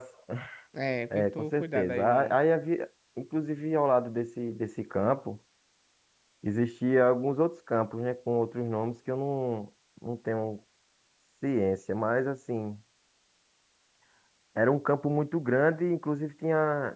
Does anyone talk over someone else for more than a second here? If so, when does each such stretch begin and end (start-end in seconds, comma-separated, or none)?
1.1-2.4